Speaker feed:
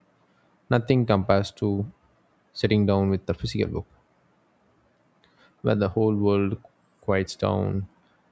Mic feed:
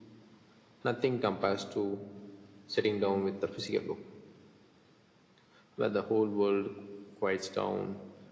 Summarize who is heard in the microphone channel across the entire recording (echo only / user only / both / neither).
echo only